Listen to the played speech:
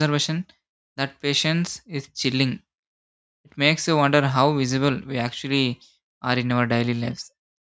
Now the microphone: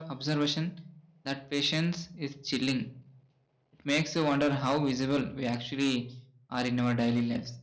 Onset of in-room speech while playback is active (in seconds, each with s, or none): none